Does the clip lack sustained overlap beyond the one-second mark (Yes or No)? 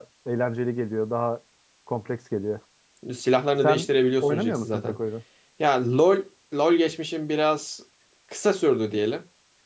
No